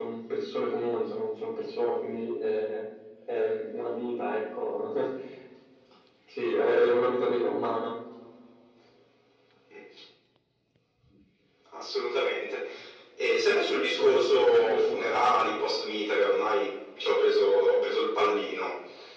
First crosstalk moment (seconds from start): 14 s

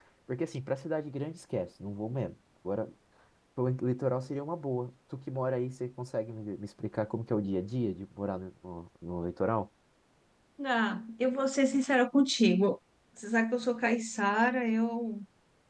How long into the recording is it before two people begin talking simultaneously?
none

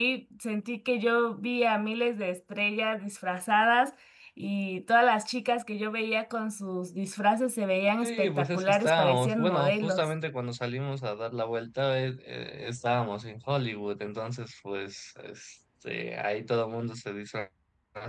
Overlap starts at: 8 s

